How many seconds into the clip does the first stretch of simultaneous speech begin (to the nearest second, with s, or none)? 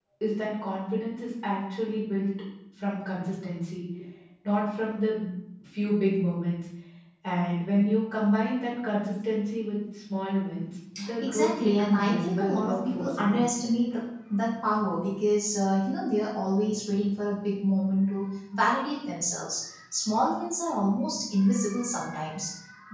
11 s